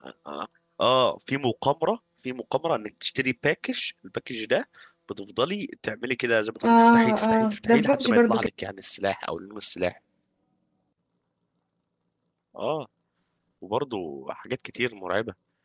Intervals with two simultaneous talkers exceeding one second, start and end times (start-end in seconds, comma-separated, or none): 6.6-8.5